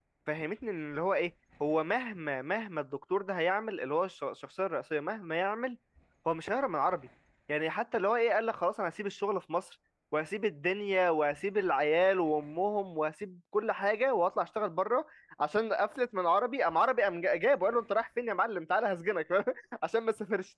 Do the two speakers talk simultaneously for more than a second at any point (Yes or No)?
No